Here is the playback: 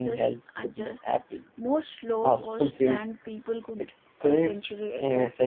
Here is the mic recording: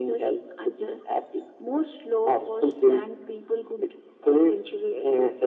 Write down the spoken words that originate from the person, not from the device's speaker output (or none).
none